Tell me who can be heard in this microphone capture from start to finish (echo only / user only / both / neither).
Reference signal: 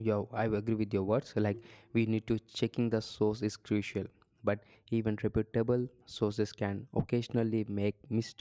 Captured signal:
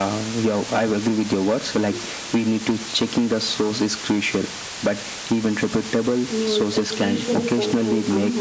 both